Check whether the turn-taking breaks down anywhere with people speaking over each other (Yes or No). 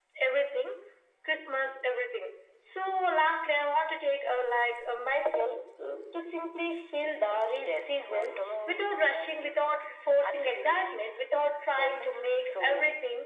Yes